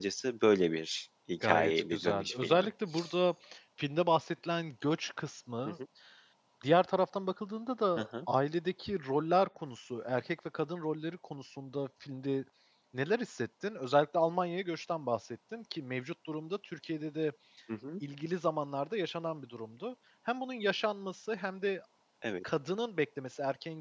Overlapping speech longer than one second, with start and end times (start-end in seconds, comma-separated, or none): 1.4-2.7